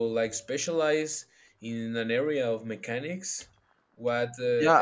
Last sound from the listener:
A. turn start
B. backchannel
A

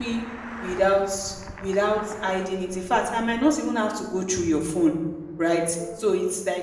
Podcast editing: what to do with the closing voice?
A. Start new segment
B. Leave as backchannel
B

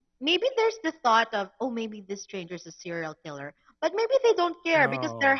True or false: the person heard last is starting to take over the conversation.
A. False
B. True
A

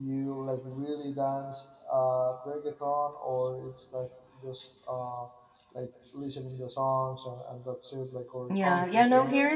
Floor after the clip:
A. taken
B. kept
A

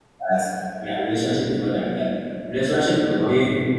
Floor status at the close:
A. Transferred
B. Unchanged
B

